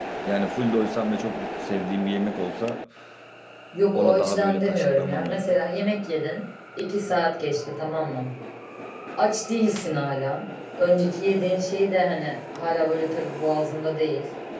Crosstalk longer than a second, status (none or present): present